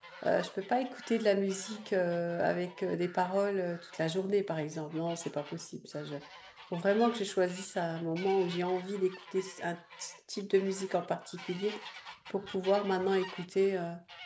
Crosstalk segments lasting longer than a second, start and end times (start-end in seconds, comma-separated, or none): none